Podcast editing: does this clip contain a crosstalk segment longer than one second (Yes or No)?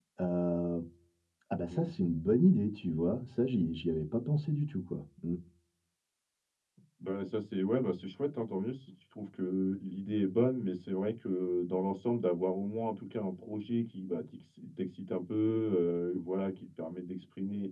No